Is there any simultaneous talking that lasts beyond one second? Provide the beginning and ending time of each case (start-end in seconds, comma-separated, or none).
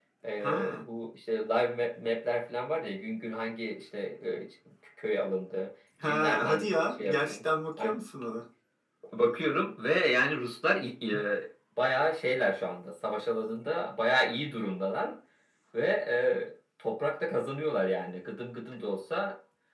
6.1-7.4